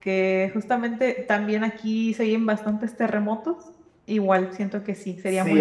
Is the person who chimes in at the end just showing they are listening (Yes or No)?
No